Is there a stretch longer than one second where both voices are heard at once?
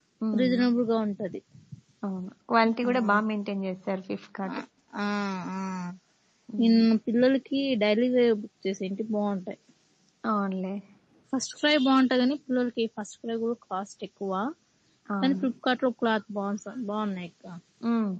No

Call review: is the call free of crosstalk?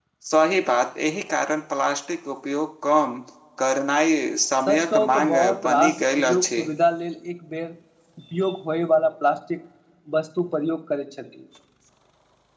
No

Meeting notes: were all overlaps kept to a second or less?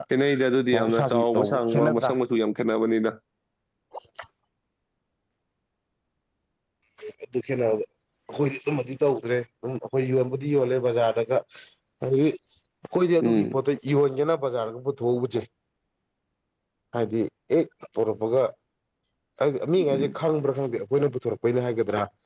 No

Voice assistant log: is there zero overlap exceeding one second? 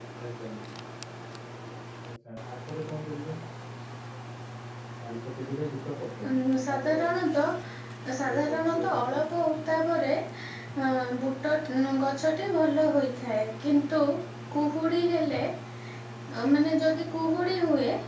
No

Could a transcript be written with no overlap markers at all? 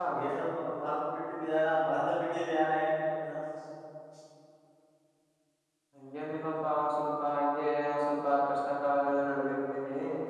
Yes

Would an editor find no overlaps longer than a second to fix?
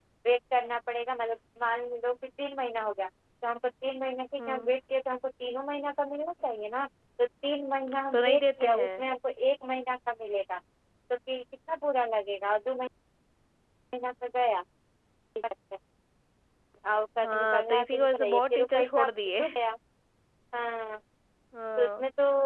No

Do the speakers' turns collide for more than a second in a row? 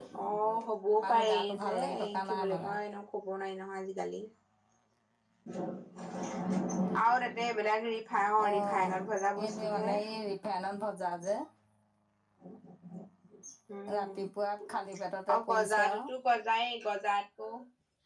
Yes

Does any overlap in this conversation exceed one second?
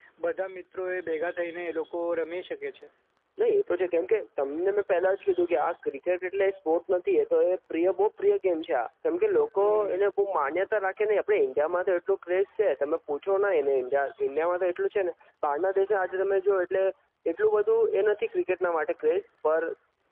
No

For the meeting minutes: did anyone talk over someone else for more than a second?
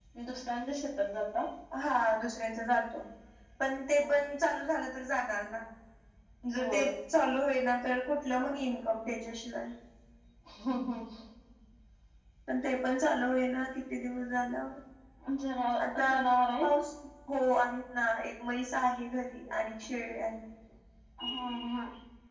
No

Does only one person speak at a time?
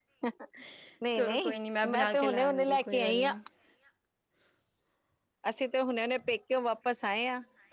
No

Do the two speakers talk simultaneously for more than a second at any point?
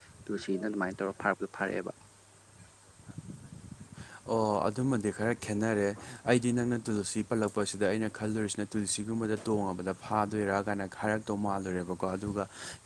No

